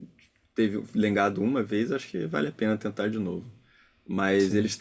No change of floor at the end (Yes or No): Yes